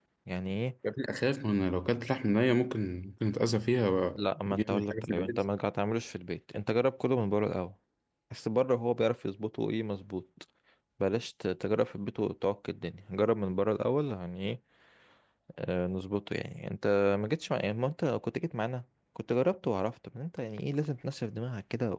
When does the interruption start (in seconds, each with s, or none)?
4.1 s